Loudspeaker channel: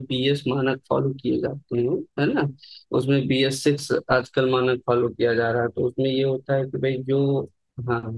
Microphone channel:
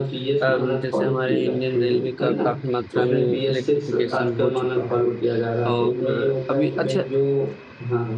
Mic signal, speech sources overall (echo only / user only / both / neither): both